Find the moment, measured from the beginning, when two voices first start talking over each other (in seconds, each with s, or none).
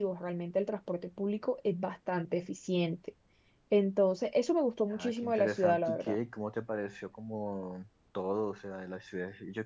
4.9 s